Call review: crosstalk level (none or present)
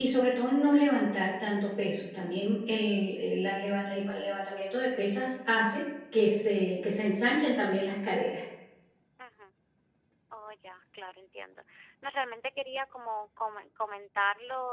none